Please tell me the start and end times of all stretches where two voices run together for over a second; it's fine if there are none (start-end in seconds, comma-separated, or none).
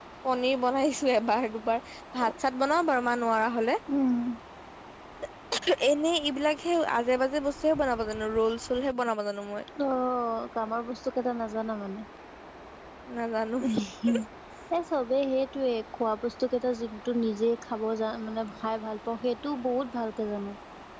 none